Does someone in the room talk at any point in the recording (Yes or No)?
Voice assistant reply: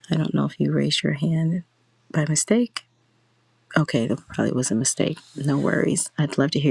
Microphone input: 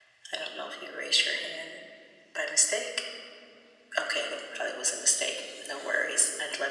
No